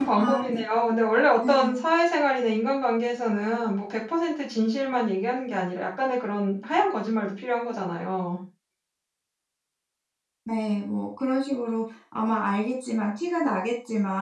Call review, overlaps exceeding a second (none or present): none